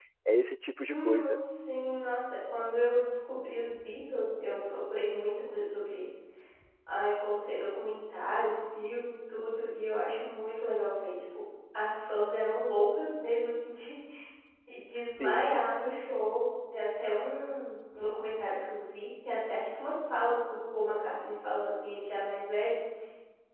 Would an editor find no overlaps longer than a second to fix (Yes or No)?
Yes